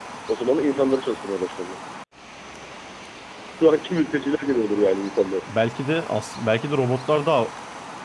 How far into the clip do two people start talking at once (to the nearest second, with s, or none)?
none